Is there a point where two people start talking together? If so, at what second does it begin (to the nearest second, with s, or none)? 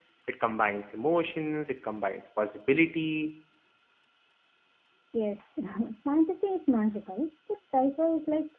none